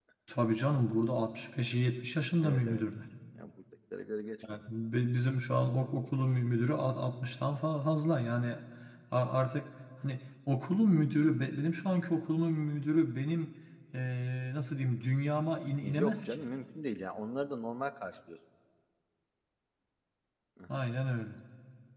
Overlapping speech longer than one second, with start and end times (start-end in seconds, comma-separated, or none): none